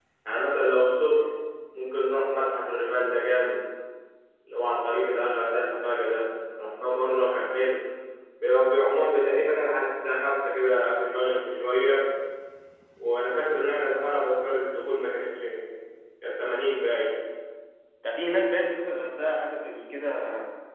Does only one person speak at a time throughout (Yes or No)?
Yes